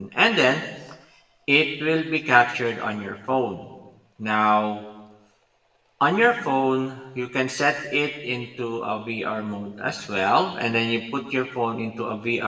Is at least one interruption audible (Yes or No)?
No